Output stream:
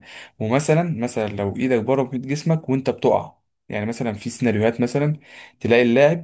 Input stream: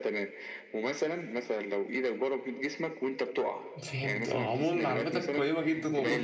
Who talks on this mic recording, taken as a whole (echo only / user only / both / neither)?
both